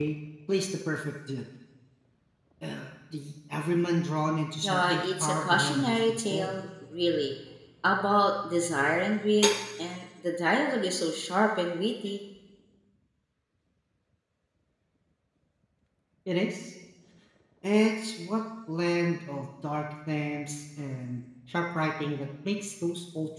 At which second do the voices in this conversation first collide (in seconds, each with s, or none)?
4.6 s